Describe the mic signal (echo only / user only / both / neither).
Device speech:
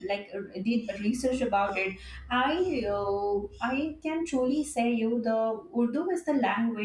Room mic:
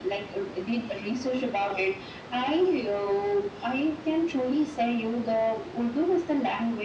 echo only